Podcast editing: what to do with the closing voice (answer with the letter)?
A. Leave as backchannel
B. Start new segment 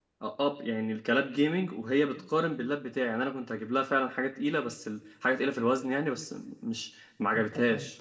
B